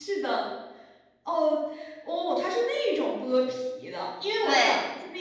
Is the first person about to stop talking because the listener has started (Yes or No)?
No